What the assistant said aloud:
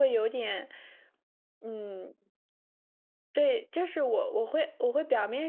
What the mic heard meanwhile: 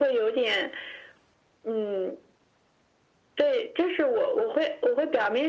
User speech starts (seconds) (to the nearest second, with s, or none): none